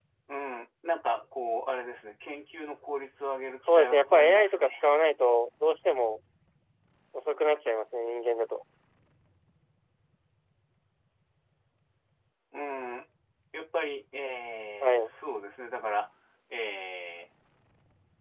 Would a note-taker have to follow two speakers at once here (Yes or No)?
Yes